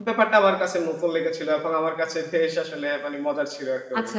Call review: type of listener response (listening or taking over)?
taking over